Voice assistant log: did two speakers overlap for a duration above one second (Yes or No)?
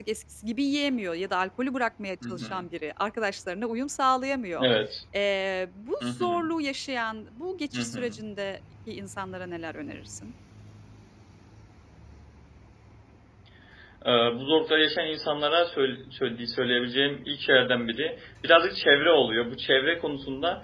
No